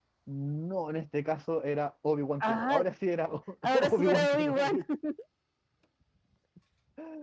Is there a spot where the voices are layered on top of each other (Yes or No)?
Yes